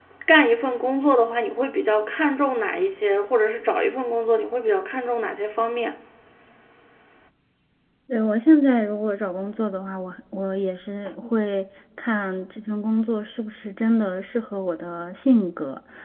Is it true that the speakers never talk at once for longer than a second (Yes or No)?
Yes